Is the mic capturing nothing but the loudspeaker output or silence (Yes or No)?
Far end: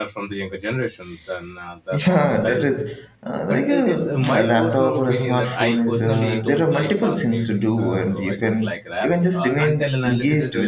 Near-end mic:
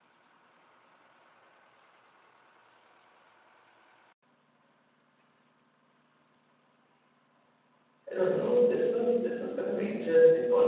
No